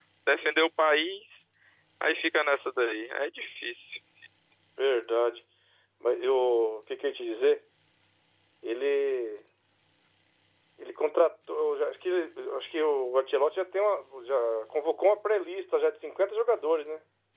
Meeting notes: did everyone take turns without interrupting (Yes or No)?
Yes